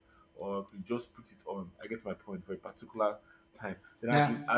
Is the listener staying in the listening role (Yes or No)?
Yes